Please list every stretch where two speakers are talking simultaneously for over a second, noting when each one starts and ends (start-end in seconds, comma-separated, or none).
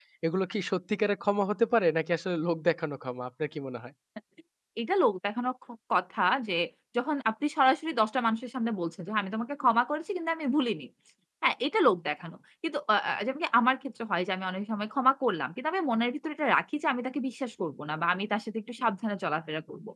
none